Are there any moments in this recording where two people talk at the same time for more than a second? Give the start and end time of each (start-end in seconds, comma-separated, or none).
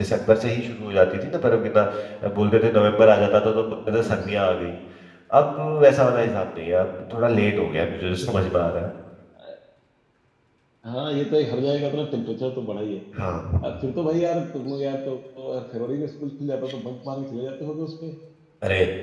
none